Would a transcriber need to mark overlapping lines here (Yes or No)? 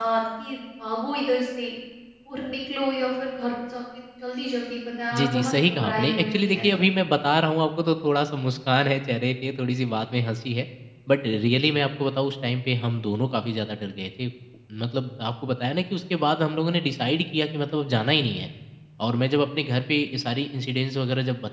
Yes